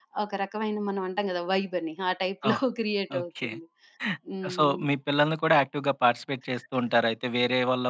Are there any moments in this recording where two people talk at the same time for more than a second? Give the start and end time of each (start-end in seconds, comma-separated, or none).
none